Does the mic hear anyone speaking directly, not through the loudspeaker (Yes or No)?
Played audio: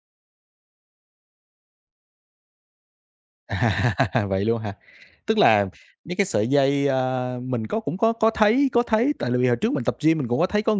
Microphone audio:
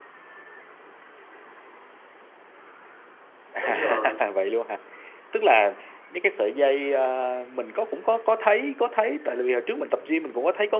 Yes